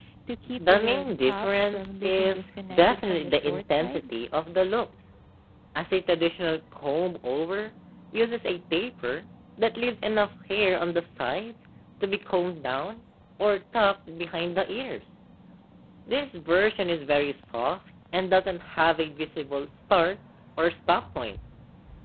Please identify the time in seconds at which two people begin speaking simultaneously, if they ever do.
0.6 s

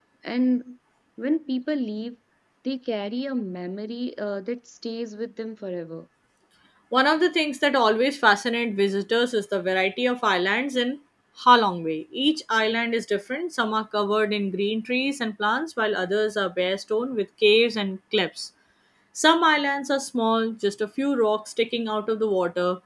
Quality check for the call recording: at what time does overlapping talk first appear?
none

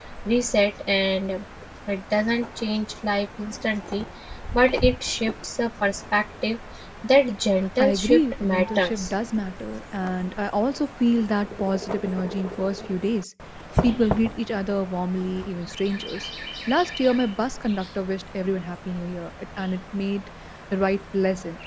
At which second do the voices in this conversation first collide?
7.8 s

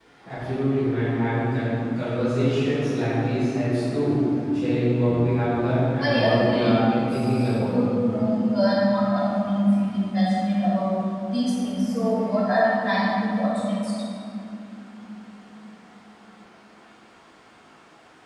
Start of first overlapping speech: 6.0 s

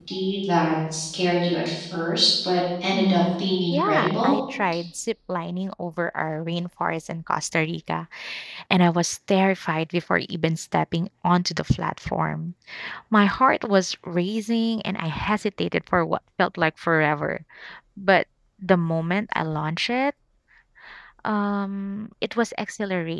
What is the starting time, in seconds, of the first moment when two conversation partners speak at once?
2.9 s

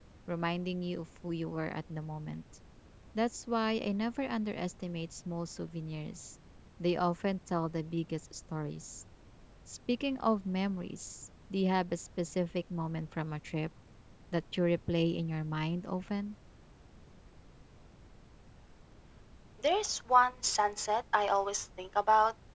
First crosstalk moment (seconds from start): none

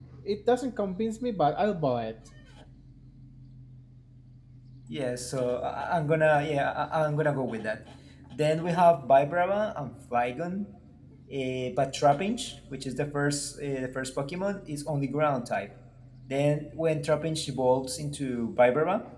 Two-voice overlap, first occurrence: none

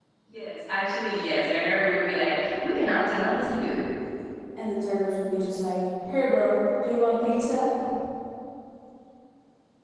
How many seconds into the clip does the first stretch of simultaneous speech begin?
none

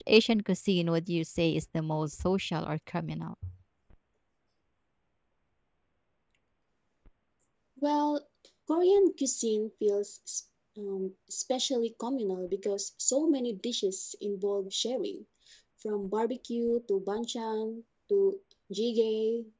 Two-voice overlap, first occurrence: none

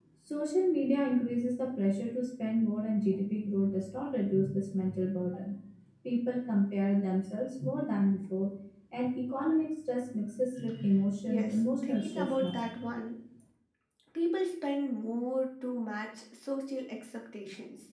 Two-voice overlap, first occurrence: 11.3 s

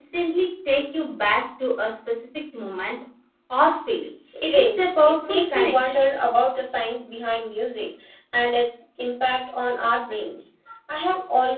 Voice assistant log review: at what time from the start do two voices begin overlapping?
4.5 s

